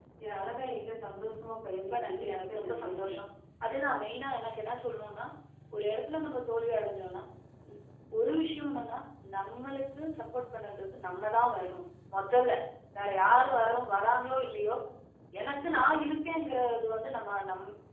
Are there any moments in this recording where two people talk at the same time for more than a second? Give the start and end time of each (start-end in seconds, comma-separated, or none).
1.7-3.2